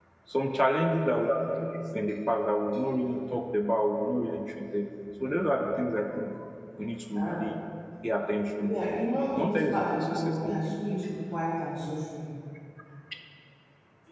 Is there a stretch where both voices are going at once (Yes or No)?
Yes